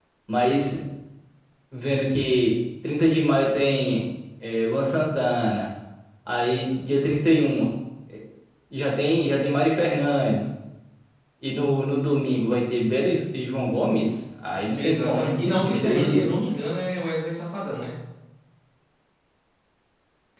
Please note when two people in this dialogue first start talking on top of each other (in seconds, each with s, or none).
14.8 s